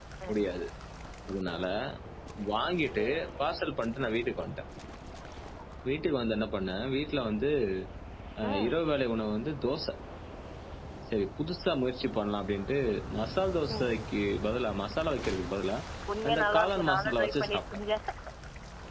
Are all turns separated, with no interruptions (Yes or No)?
No